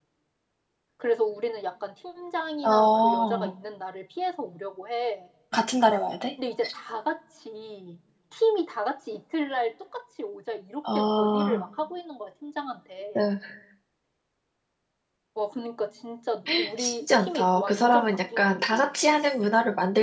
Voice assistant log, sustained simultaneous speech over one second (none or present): present